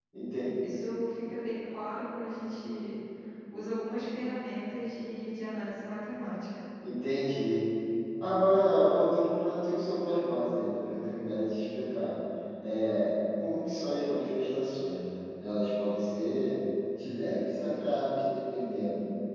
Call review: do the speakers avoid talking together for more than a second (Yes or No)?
Yes